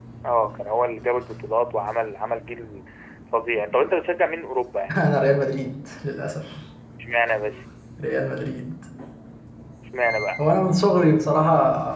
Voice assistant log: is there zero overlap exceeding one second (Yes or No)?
Yes